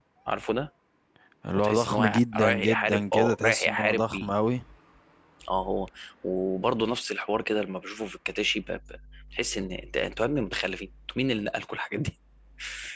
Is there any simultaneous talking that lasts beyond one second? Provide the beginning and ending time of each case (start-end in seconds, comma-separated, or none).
1.5-4.3